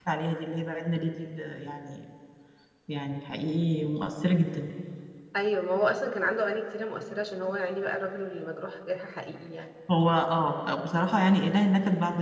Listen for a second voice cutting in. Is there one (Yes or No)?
No